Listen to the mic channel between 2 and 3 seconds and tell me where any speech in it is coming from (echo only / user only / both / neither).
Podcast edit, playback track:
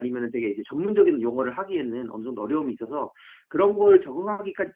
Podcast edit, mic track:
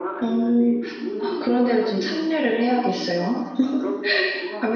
both